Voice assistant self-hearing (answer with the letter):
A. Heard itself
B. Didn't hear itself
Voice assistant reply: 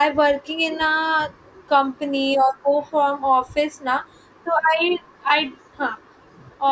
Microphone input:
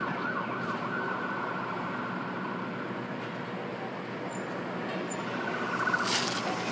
B